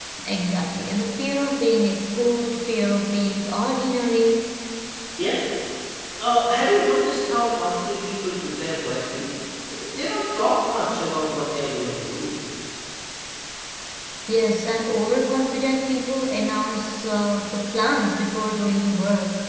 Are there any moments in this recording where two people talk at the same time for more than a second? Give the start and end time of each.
none

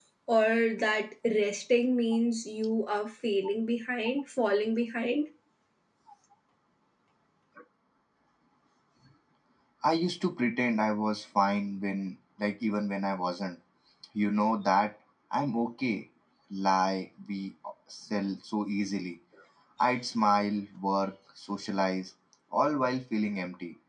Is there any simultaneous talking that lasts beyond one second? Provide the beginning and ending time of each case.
none

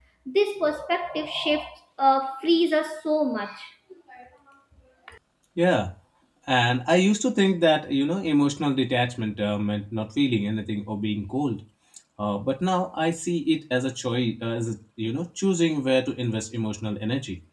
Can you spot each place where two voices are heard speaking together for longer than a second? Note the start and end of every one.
none

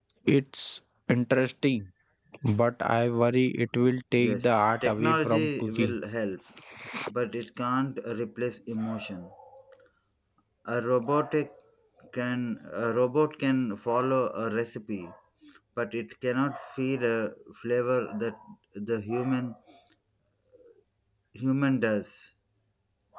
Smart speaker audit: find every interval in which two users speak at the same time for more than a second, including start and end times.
4.2-6.0

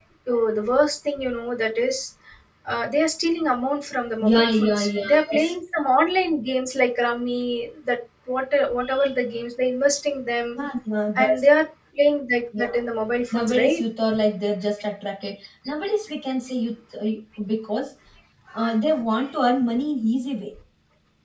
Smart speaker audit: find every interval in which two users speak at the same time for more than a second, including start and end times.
4.2-5.5

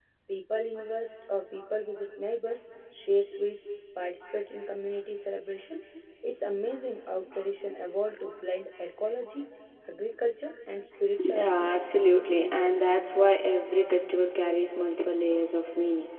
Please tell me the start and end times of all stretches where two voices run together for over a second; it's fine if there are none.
11.2-12.5

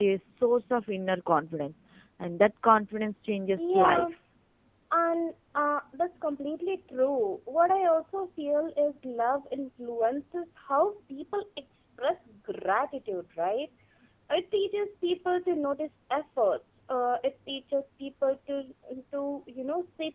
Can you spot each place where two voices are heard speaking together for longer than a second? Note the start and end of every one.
none

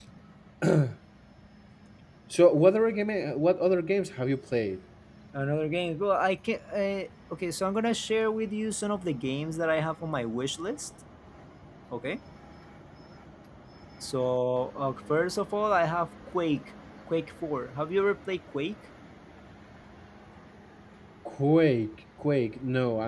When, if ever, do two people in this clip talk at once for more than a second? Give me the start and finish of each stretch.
none

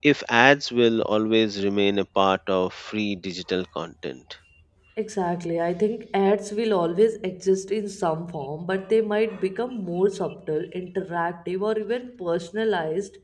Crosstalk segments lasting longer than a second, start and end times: none

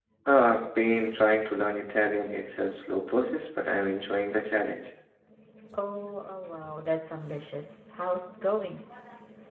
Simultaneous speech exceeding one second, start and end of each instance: none

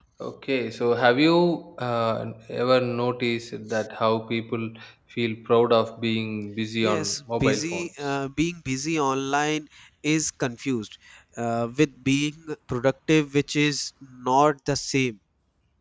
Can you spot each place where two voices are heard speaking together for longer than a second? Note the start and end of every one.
6.9-8.1

